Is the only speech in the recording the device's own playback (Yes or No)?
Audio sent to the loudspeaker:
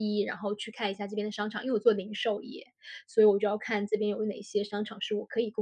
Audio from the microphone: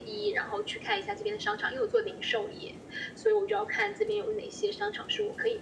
Yes